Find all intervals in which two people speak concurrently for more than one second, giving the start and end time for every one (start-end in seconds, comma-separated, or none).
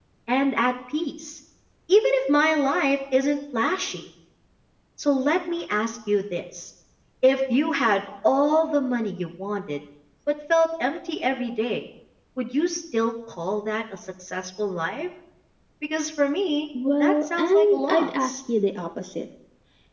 17.0-18.4